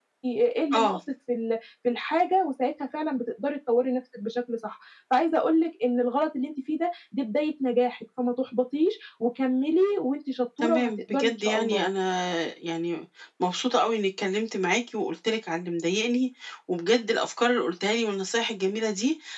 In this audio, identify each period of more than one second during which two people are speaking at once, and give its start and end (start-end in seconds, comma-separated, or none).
10.6-11.9